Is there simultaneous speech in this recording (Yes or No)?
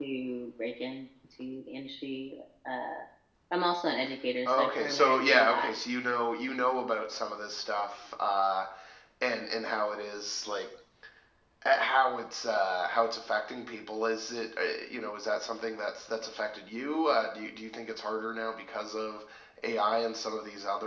Yes